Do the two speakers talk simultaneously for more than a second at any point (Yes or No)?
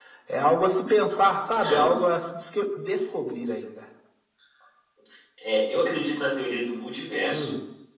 No